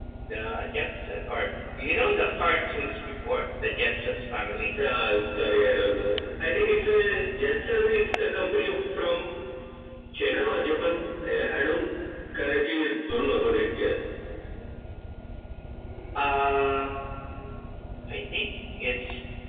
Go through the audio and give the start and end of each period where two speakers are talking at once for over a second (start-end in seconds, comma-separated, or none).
none